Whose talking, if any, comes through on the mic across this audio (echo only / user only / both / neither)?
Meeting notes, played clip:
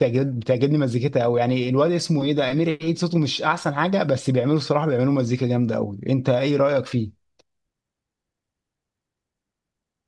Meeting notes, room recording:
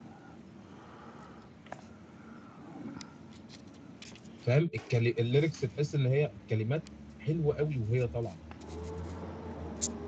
user only